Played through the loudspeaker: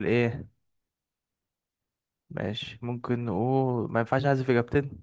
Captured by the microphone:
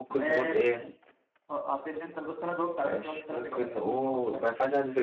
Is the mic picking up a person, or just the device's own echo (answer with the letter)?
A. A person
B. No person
A